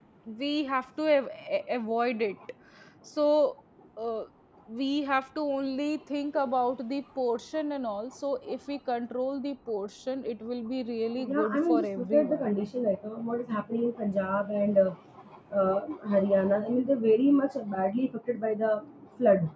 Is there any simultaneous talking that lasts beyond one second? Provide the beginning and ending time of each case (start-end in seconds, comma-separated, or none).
11.3-12.5